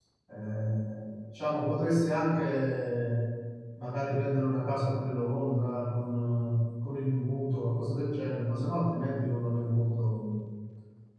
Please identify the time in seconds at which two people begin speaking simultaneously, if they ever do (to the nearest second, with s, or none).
none